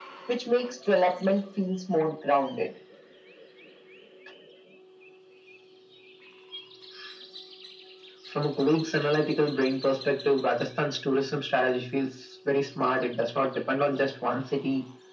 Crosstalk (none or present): none